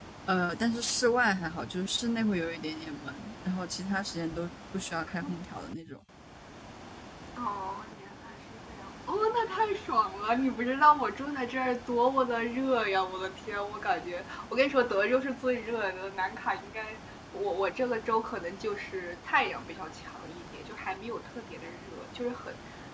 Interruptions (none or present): none